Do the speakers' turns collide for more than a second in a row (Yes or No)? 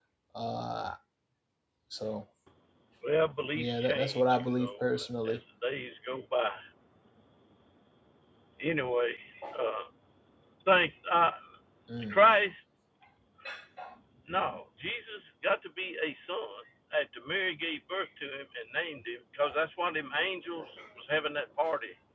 Yes